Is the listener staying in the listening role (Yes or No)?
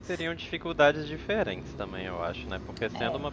Yes